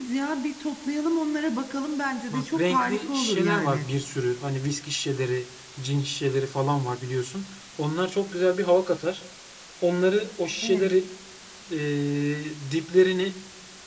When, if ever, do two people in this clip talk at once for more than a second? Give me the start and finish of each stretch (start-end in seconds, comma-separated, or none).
2.3-3.9